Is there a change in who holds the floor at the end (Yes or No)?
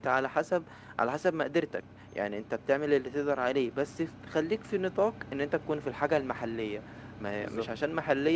No